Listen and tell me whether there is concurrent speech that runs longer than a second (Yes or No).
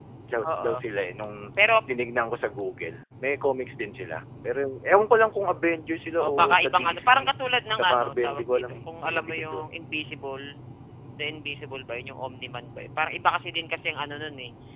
Yes